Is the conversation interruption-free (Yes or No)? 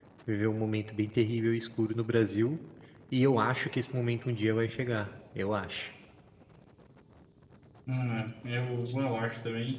Yes